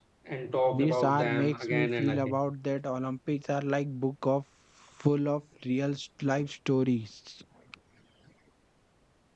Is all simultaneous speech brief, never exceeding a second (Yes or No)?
No